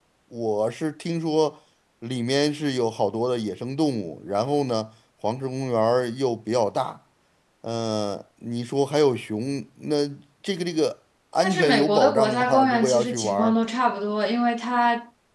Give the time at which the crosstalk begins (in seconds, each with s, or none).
11.4 s